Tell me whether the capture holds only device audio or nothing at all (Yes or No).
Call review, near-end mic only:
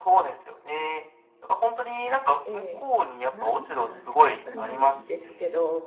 No